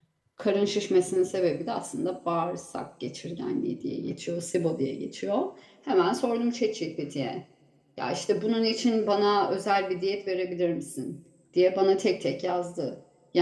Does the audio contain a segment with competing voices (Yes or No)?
No